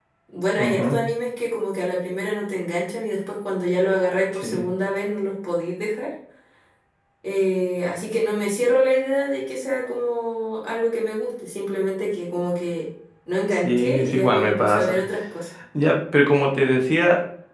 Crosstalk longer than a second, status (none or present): present